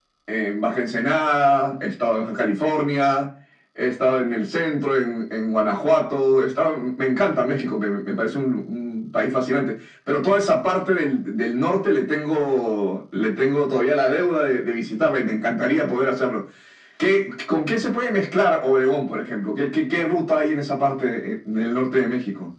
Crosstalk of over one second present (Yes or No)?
No